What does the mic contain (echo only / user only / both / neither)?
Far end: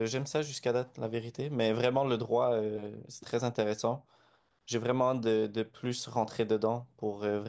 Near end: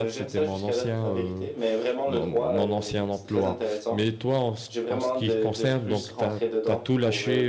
both